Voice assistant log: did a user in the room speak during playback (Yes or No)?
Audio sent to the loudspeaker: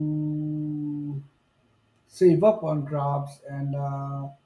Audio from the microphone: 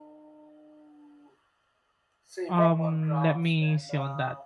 Yes